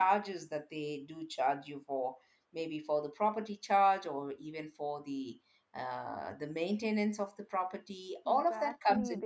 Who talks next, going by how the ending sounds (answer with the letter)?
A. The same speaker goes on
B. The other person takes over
B